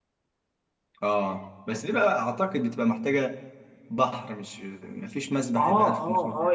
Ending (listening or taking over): taking over